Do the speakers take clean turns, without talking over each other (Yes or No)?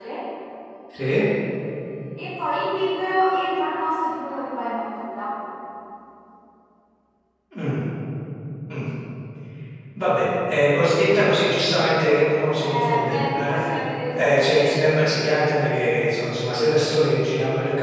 No